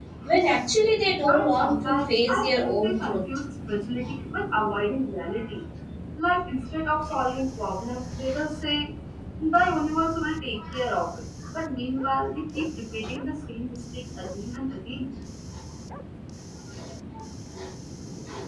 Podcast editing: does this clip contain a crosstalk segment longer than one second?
Yes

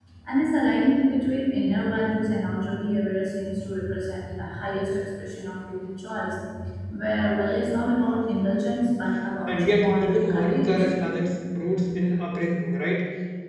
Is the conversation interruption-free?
No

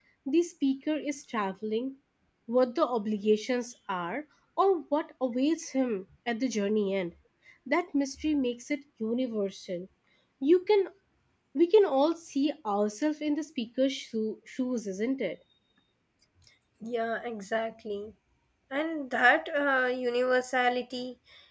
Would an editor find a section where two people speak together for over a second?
No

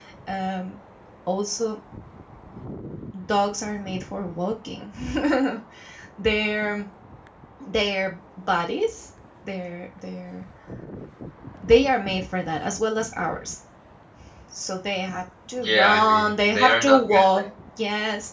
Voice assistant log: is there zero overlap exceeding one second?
No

